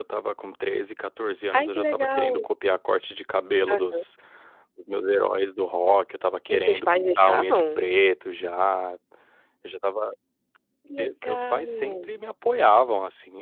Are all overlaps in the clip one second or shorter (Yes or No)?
No